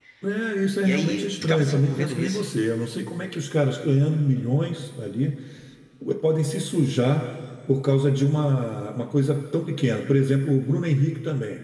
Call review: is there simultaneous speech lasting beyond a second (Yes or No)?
Yes